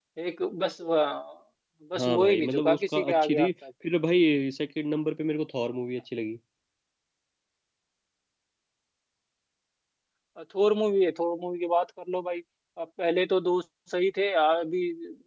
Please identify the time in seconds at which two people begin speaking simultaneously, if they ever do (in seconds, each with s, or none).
2.0 s